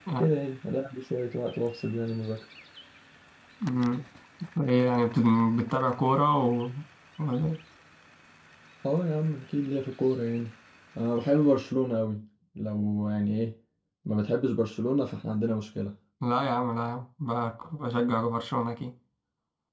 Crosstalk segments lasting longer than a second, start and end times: none

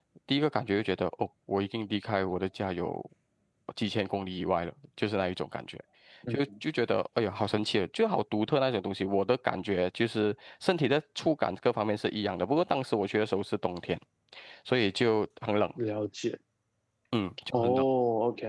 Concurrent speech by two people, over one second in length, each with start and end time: none

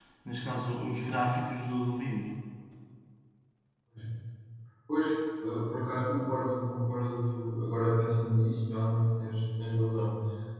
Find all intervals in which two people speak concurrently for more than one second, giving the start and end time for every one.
none

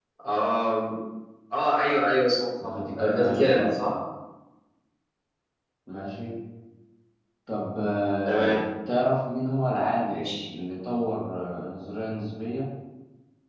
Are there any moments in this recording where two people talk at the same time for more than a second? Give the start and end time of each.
2.6-3.8

